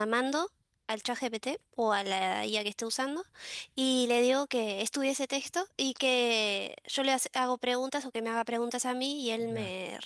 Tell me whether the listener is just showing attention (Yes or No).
Yes